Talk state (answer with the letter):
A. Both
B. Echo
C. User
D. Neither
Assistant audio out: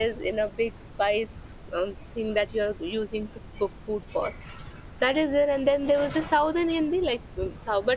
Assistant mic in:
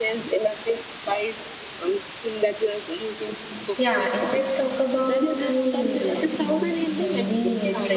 A